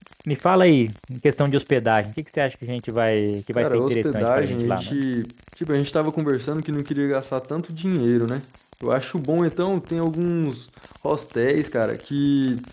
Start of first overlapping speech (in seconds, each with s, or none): 3.6 s